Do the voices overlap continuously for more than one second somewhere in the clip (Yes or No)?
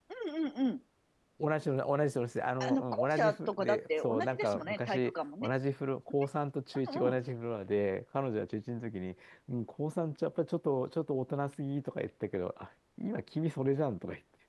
Yes